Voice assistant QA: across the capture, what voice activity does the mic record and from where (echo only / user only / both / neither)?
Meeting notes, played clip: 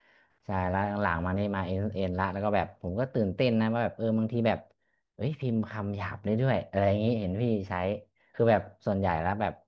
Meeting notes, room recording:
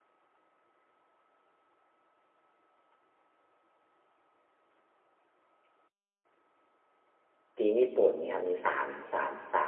user only